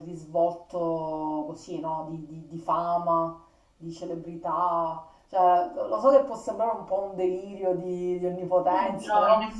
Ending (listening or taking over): taking over